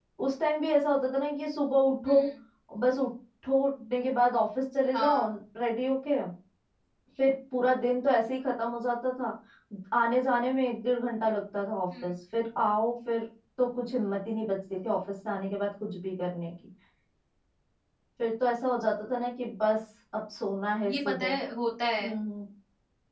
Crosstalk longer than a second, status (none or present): none